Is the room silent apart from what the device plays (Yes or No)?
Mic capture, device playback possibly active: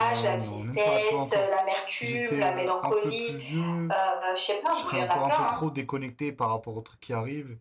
No